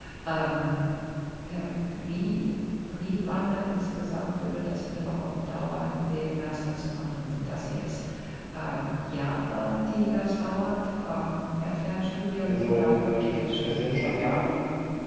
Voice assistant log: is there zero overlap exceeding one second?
No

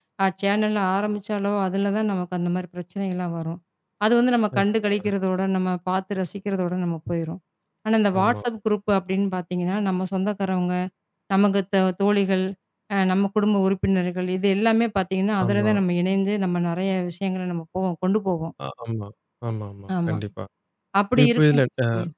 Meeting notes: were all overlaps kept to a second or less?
Yes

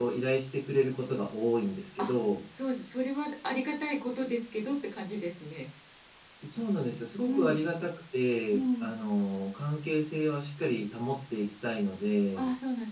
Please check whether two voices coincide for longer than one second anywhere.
No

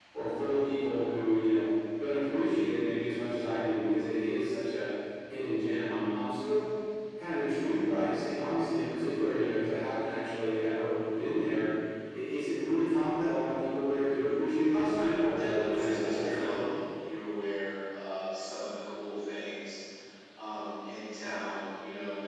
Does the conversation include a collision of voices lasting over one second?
Yes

